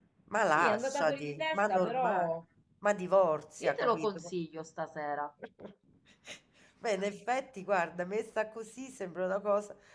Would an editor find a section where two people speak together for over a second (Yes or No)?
Yes